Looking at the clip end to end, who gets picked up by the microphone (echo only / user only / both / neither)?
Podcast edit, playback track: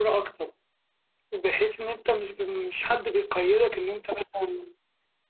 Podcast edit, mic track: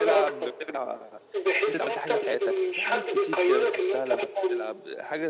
both